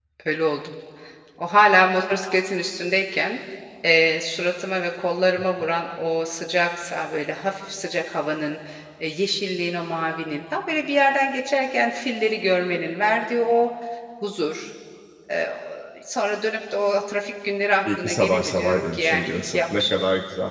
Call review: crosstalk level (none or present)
present